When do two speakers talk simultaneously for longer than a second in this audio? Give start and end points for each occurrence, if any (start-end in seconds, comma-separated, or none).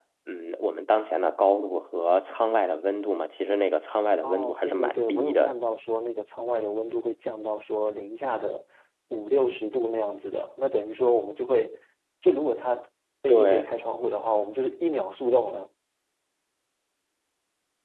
4.2-5.5